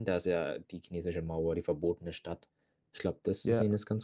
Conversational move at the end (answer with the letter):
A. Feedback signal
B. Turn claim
A